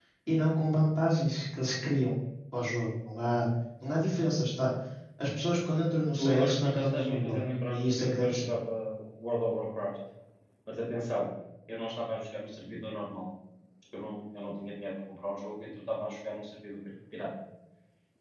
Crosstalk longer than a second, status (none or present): present